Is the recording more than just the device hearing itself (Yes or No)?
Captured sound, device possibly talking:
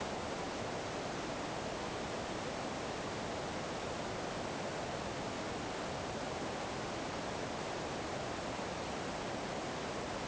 No